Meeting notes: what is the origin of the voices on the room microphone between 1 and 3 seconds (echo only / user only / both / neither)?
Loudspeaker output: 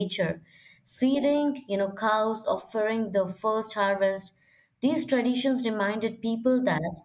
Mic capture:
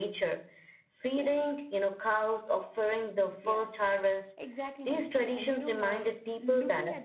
echo only